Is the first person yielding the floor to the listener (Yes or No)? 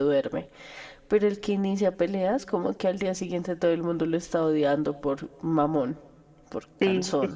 Yes